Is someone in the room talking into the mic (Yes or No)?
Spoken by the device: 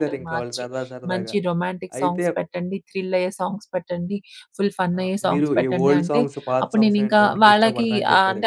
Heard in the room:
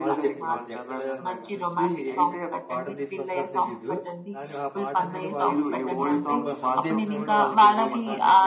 Yes